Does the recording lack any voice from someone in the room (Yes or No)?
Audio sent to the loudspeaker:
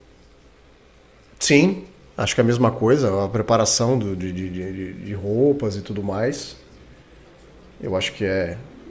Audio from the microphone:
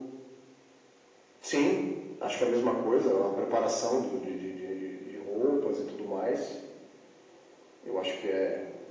Yes